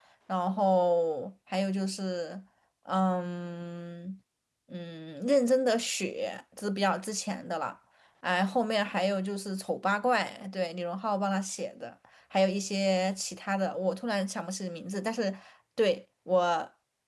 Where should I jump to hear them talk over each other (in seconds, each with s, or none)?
none